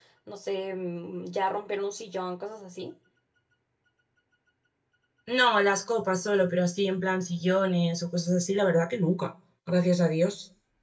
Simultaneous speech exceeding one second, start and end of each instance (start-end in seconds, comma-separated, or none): none